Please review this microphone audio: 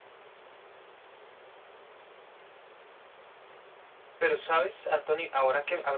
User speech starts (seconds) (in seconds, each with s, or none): 4.2 s